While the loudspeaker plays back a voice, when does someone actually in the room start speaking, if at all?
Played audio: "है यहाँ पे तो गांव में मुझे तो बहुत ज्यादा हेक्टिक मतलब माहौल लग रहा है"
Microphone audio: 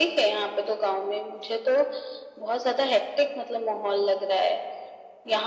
none

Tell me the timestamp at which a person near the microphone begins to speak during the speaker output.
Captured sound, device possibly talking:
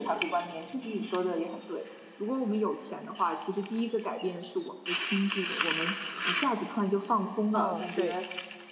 7.5 s

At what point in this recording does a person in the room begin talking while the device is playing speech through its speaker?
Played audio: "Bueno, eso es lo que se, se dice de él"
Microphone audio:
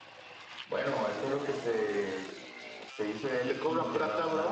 3.4 s

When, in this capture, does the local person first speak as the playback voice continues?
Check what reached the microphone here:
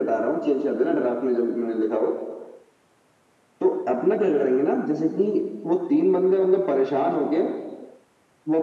none

